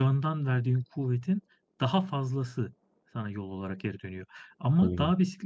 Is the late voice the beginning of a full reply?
No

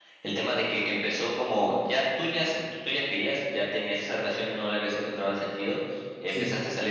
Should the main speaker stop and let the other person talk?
No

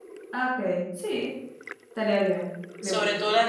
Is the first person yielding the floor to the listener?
Yes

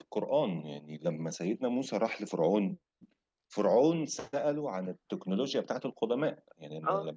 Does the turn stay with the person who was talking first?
Yes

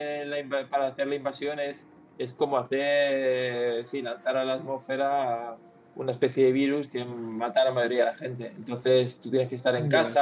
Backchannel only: Yes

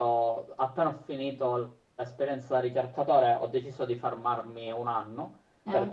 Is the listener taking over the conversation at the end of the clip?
No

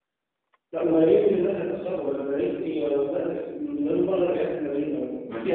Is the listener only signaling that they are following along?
No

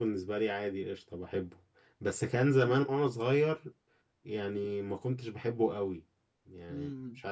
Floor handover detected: No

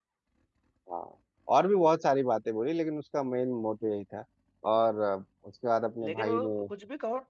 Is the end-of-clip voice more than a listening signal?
Yes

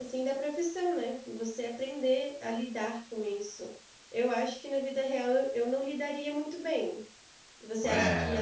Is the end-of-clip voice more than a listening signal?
No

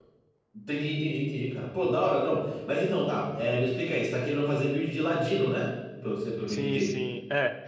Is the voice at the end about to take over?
Yes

